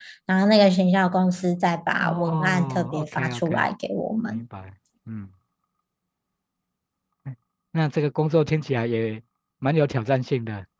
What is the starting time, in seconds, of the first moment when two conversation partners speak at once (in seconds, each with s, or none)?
2.0 s